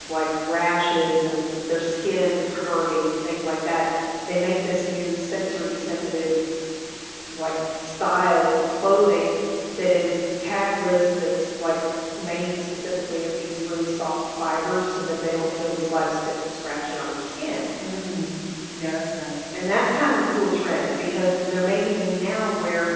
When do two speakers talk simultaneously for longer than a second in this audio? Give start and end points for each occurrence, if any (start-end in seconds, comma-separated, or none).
none